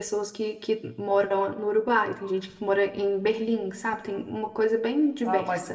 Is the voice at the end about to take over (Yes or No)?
Yes